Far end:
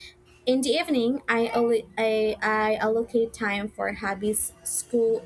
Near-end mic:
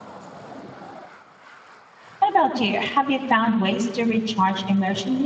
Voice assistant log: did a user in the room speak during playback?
Yes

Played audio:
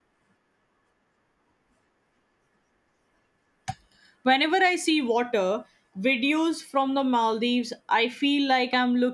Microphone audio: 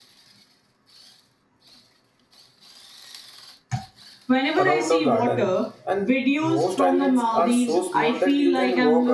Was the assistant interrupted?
Yes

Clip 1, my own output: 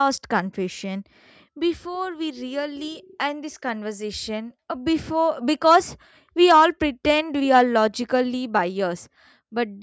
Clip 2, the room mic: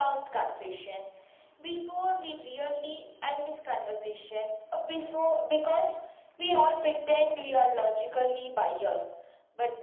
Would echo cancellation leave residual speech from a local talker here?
No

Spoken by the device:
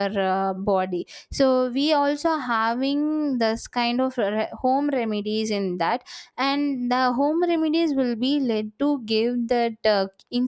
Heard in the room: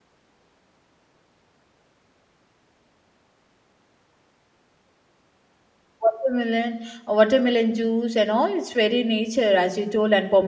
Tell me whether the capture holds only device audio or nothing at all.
No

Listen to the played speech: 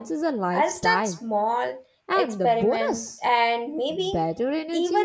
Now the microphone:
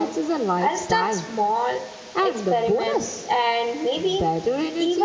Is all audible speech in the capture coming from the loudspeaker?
Yes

